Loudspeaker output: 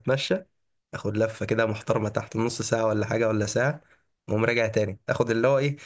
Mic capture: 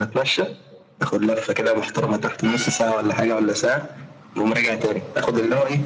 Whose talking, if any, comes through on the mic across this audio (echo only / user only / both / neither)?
echo only